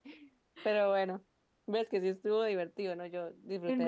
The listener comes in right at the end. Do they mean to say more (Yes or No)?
Yes